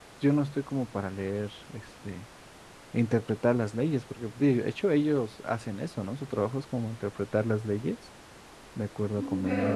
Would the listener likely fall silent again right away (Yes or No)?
No